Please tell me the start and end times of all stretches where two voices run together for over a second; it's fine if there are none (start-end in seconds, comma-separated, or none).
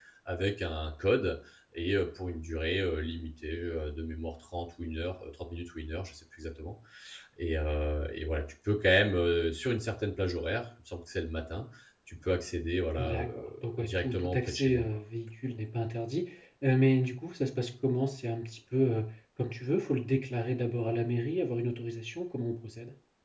13.0-14.8